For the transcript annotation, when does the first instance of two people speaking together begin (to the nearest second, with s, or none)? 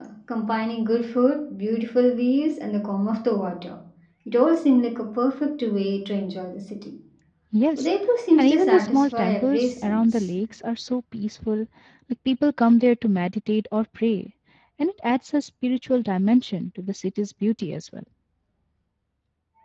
8 s